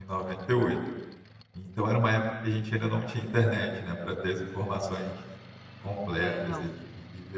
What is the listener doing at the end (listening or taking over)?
listening